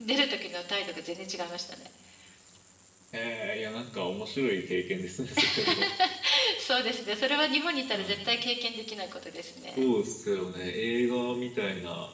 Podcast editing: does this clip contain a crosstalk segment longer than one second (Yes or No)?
No